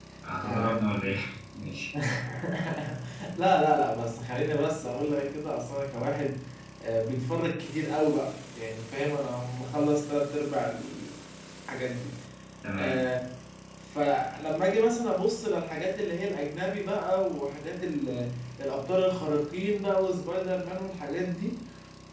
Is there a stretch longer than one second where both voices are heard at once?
No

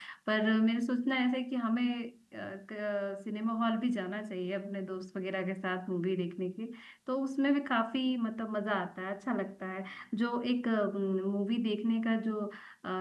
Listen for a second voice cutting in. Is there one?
No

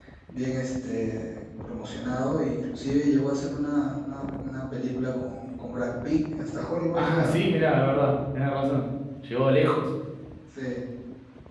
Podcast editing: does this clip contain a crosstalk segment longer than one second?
No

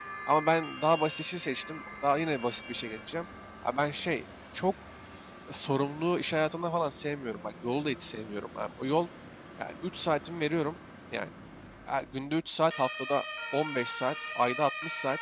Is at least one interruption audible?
No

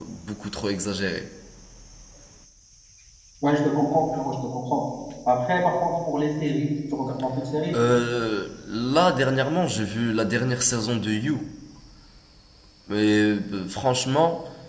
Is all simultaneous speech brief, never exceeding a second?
Yes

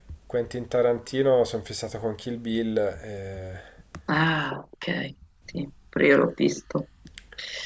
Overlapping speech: No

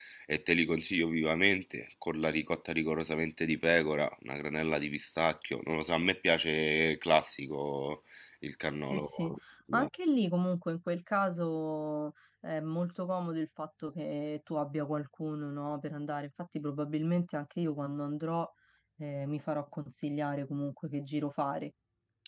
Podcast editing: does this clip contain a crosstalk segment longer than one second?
No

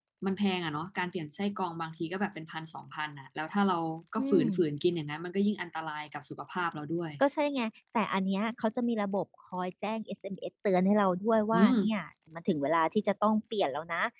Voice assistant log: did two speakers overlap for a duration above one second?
No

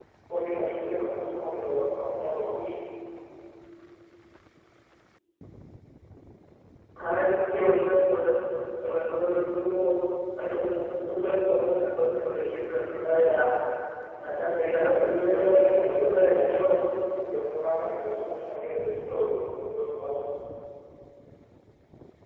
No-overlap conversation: No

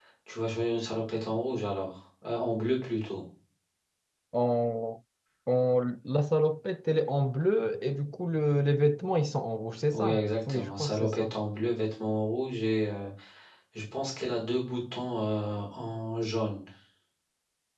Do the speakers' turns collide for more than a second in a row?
Yes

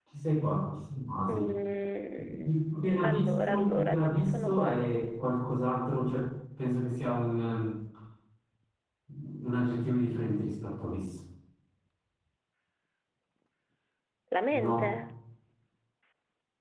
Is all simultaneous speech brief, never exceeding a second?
No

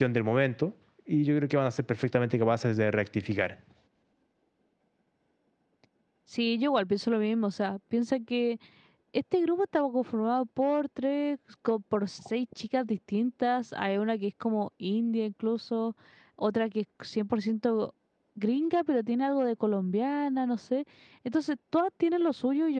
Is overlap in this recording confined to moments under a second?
Yes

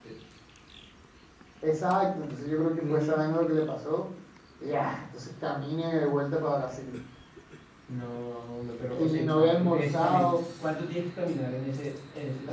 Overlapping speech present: Yes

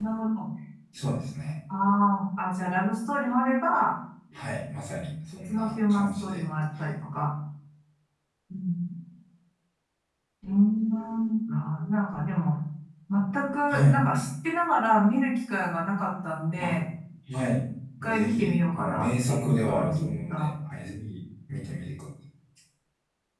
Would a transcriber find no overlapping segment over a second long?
No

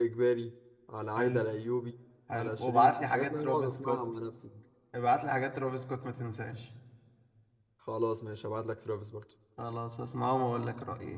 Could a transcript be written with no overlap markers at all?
No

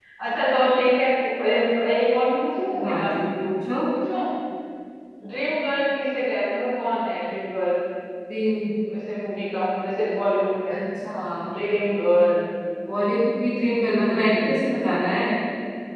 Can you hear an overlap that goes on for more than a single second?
No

